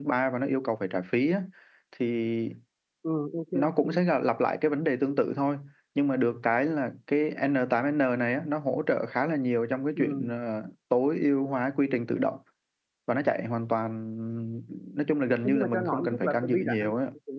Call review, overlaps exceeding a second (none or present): present